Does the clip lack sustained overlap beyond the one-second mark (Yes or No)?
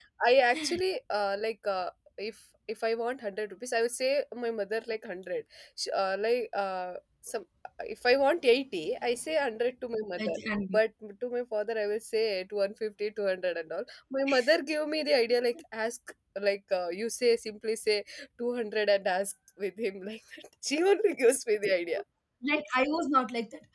Yes